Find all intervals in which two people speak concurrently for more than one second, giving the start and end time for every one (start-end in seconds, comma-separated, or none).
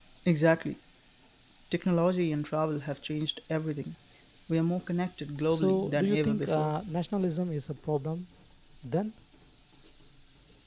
5.5-6.7